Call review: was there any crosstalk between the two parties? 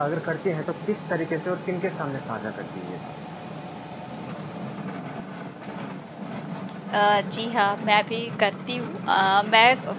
No

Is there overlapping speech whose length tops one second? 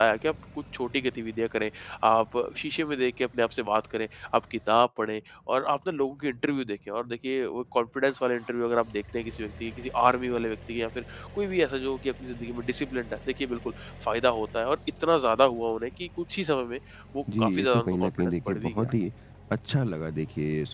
Yes, from 17.4 s

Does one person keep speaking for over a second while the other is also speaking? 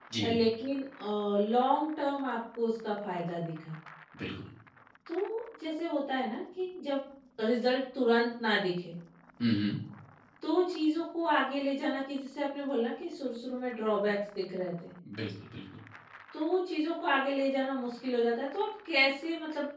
No

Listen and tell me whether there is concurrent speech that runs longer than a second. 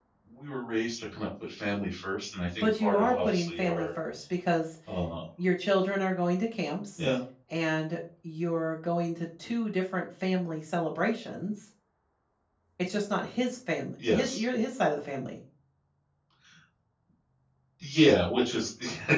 Yes, from 2.6 s

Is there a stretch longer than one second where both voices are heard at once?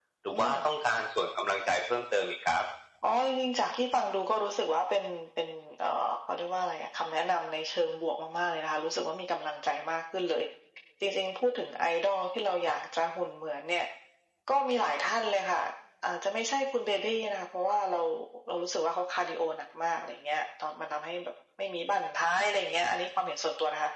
No

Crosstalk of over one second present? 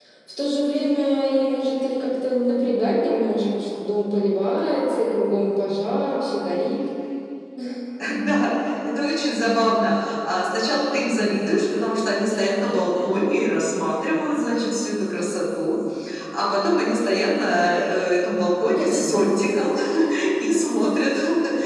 No

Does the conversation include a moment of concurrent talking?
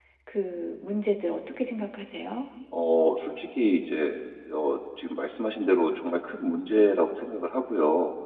No

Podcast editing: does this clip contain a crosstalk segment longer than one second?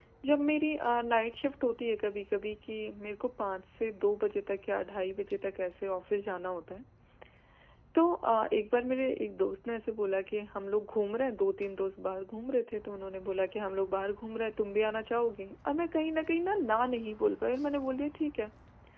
No

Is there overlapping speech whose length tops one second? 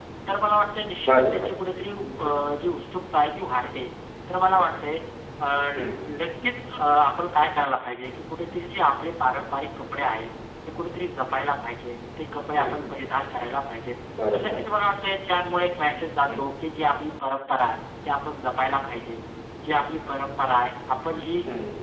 No

